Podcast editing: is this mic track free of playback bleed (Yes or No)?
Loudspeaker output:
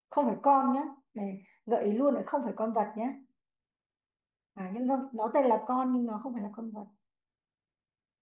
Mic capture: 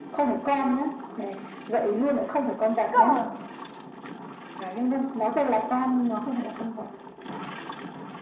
No